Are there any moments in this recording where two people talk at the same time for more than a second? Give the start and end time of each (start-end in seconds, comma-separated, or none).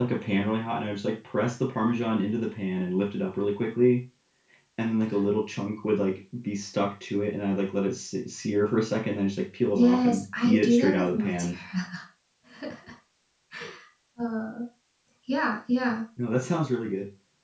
9.7-11.6